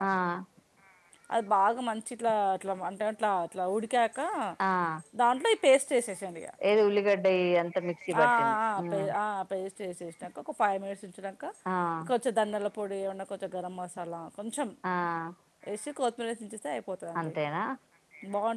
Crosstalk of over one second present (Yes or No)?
No